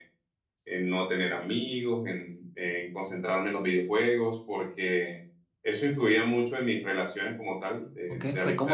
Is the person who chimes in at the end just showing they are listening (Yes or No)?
No